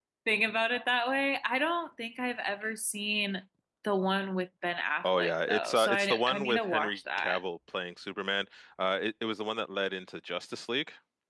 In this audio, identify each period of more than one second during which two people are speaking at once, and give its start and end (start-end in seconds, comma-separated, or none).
5.0-7.4